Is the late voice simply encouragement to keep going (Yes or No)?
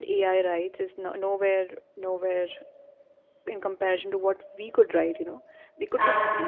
Yes